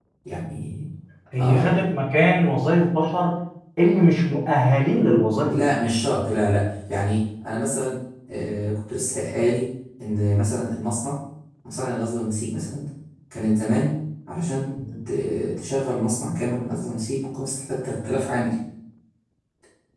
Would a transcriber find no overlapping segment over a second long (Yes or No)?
Yes